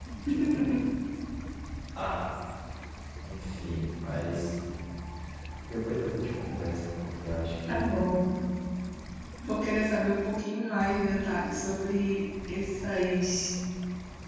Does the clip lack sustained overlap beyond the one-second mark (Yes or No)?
Yes